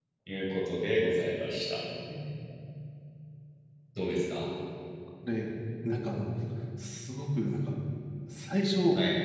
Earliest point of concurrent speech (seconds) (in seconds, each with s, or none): none